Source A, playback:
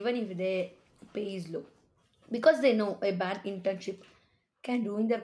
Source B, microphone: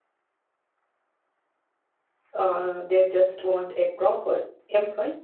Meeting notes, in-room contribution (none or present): present